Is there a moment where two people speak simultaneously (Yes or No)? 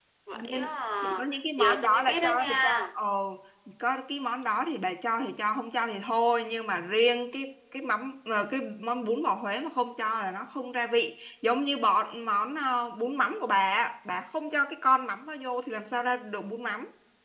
Yes